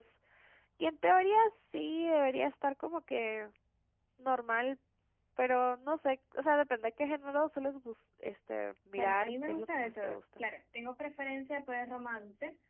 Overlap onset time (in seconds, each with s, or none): 9.0 s